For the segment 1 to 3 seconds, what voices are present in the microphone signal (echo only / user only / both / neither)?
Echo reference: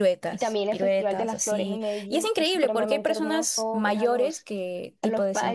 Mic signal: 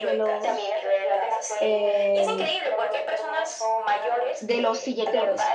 both